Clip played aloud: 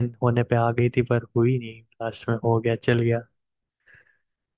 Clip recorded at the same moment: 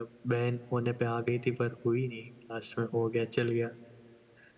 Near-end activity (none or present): none